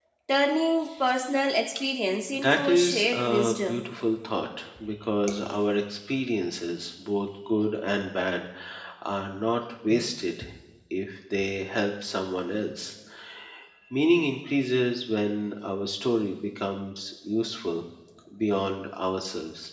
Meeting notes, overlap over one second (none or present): present